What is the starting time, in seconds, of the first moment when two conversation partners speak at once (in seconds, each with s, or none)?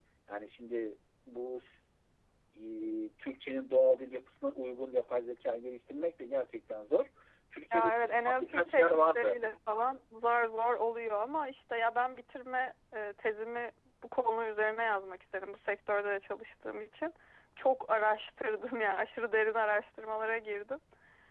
7.7 s